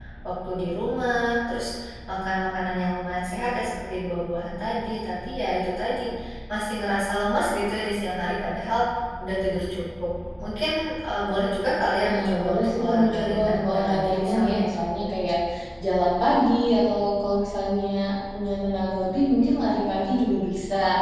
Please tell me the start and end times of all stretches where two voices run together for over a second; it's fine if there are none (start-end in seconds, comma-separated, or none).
12.1-14.6